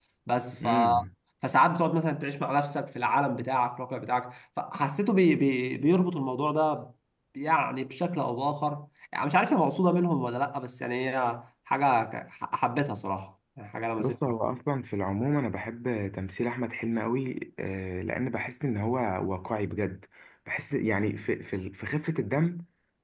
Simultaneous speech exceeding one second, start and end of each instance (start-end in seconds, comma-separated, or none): none